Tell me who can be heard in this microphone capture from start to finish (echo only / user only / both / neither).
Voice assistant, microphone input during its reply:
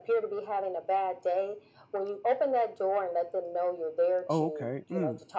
both